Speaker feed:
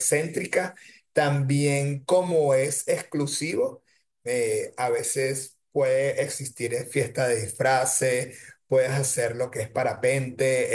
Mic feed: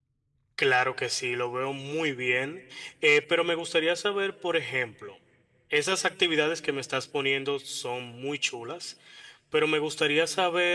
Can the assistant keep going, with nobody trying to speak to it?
No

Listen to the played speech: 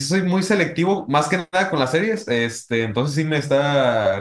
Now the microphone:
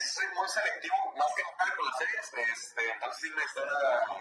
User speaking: No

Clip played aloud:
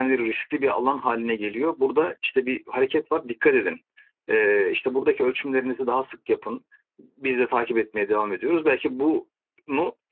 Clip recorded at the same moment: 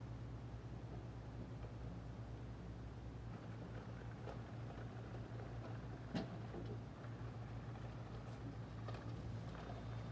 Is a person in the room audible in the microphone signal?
No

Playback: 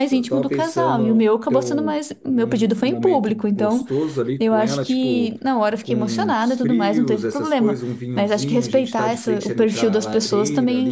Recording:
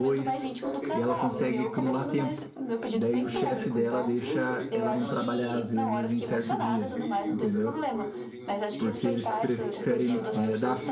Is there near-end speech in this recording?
Yes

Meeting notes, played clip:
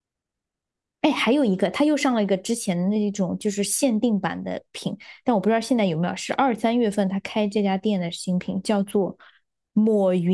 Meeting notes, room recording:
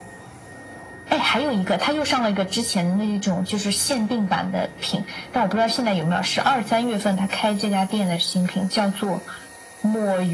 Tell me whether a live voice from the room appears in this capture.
No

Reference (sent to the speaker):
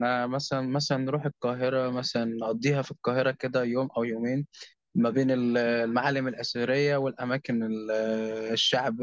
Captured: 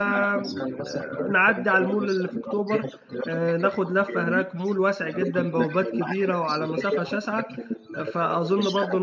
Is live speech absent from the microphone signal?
No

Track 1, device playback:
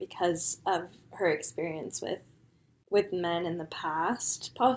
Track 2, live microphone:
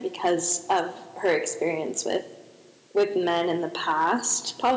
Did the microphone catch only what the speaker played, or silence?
Yes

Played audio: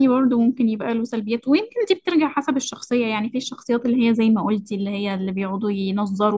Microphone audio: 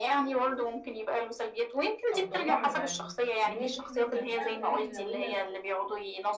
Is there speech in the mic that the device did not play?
Yes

